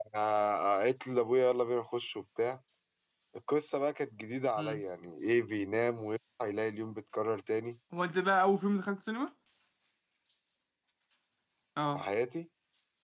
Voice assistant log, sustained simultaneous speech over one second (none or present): none